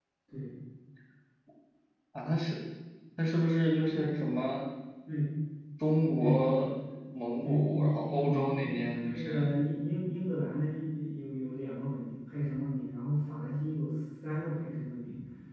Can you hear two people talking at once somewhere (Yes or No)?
Yes